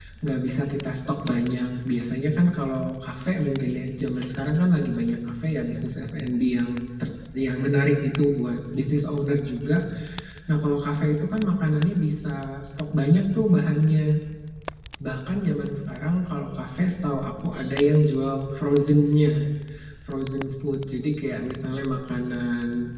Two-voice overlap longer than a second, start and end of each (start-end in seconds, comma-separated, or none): none